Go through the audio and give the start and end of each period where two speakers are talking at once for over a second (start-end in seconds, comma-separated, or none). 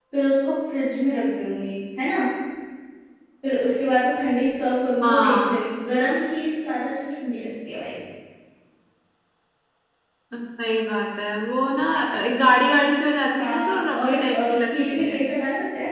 13.3-15.2